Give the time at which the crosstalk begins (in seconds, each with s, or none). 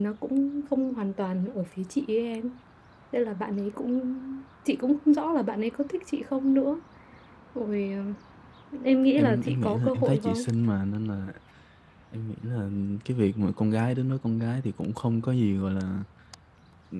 9.2 s